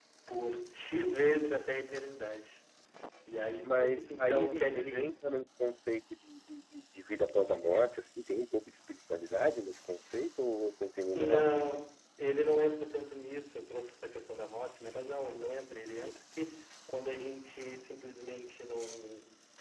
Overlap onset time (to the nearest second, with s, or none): 4 s